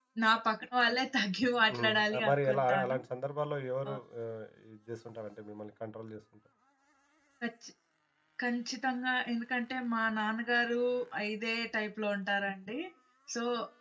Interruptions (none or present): present